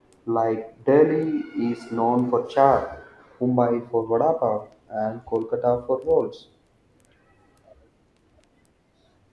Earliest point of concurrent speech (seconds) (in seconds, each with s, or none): none